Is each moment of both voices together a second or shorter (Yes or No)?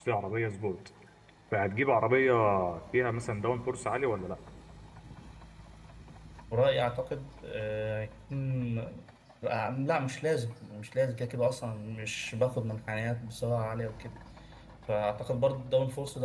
Yes